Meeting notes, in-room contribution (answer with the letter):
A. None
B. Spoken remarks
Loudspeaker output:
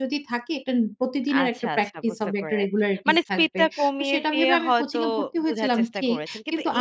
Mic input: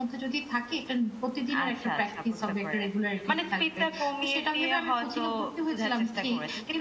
A